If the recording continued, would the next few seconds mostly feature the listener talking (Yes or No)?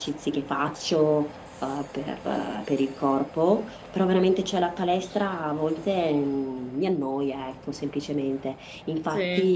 No